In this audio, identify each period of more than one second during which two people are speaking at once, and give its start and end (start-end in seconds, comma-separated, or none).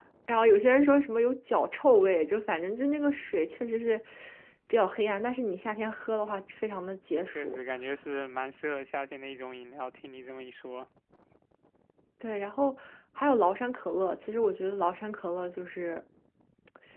none